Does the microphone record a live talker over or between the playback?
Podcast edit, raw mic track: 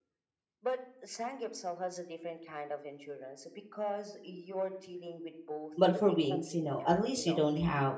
Yes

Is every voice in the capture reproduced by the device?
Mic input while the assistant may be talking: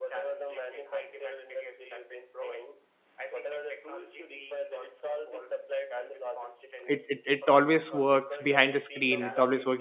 No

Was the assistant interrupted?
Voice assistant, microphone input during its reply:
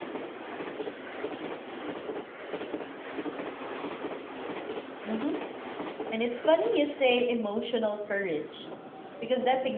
Yes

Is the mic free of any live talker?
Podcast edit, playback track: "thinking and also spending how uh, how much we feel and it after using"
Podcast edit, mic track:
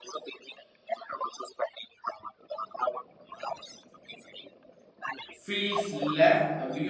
No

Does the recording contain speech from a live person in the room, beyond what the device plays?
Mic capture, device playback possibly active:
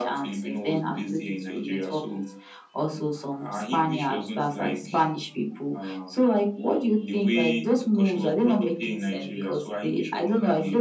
No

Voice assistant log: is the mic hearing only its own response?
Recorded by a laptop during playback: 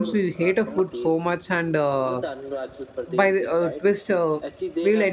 No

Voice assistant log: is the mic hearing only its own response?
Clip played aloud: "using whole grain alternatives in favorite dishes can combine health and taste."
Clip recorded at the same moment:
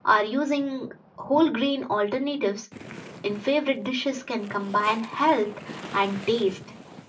Yes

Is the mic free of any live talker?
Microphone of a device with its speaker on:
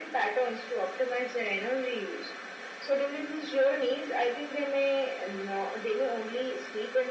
Yes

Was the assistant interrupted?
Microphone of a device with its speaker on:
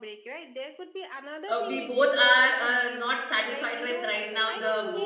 Yes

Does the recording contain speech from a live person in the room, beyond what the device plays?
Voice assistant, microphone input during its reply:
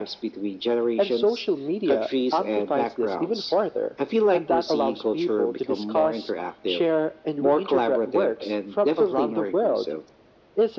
No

